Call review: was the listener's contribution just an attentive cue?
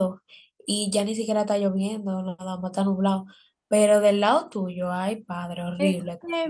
No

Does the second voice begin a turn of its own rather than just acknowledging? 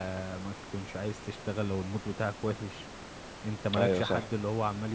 No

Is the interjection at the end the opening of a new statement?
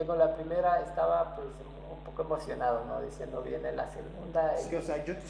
Yes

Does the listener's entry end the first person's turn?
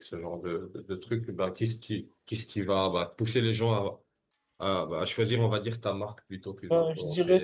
Yes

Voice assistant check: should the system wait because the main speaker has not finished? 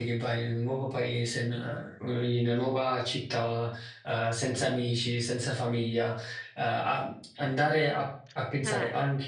Yes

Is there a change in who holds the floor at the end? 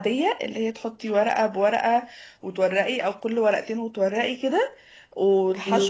No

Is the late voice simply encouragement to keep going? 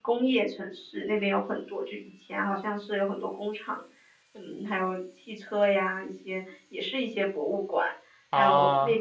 Yes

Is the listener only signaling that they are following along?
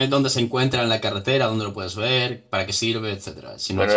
No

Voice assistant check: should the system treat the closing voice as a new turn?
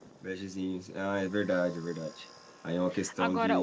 Yes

